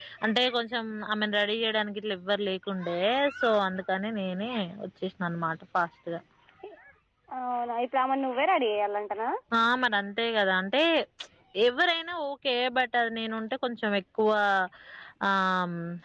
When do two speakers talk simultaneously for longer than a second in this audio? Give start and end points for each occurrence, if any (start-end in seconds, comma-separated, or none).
none